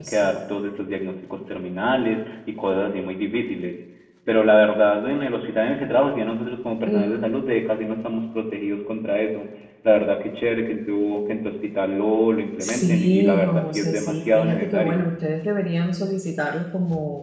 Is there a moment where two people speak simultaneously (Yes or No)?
Yes